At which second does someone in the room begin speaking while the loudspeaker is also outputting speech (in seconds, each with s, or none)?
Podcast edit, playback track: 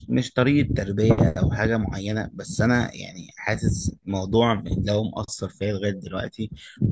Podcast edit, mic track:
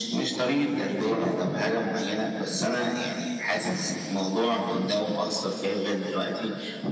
none